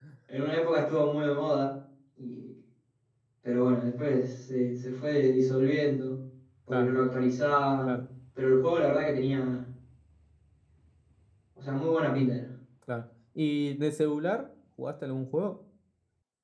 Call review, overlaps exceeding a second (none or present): none